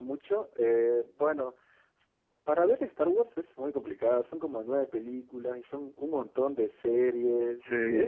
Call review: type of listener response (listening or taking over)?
listening